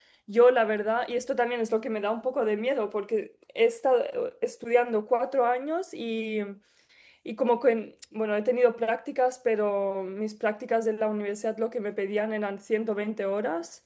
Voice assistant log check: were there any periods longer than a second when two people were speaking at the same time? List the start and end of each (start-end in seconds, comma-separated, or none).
none